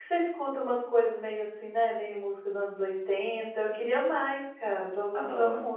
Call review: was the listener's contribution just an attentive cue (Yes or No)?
No